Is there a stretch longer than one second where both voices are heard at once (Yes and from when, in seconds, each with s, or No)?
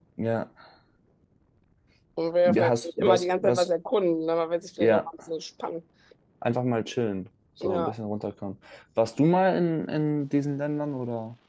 Yes, from 2.5 s